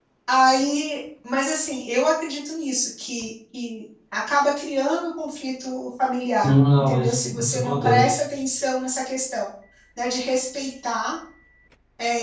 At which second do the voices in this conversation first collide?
6.3 s

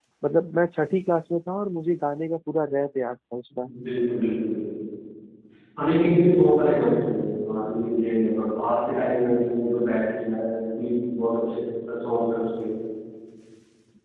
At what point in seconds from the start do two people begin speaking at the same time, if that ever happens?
none

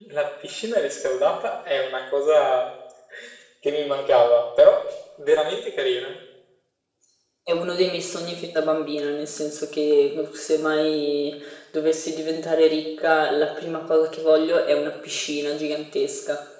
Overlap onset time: none

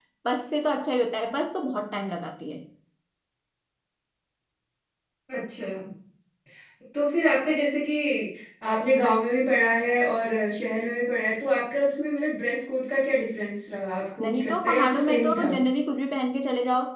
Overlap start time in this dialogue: 14.2 s

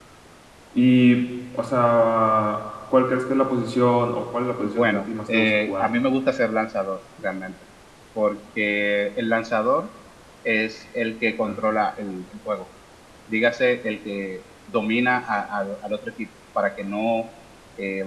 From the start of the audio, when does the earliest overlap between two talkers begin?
4.6 s

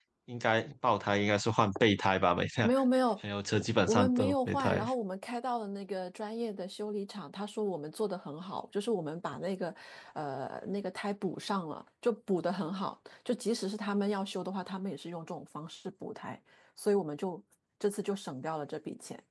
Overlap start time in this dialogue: 3.6 s

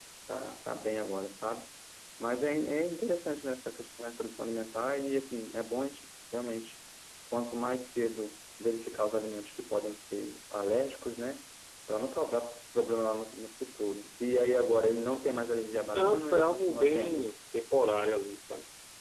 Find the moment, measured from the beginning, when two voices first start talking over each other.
15.9 s

